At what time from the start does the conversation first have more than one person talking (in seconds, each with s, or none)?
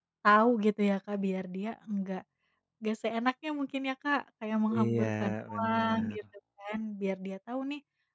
4.7 s